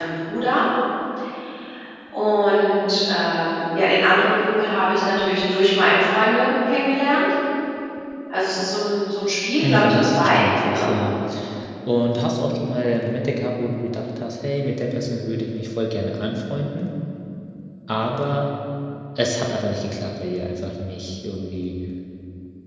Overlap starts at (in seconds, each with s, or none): 9.6 s